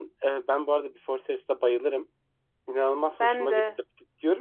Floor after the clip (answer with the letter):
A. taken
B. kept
B